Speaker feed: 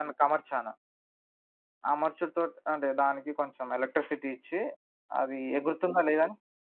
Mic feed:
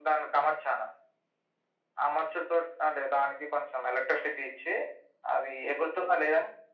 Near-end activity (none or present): none